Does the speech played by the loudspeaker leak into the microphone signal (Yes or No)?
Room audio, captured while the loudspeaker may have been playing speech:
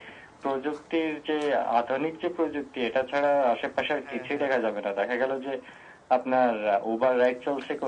Yes